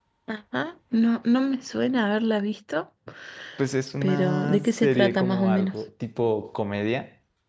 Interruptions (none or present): present